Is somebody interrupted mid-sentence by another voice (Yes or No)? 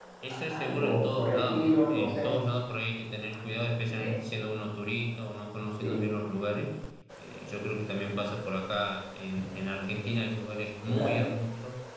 Yes